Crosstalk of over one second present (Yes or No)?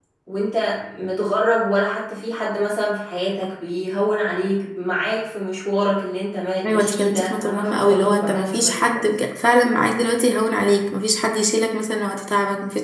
Yes